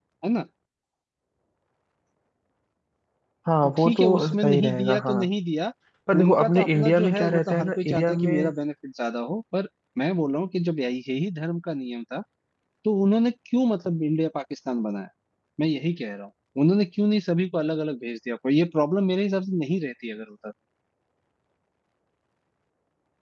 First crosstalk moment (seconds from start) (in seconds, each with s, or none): 3.6 s